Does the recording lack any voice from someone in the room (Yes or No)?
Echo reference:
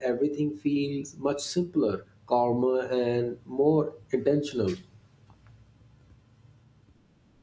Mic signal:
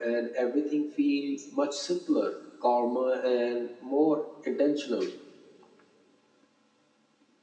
Yes